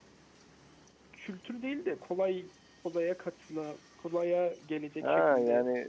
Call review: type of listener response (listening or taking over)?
taking over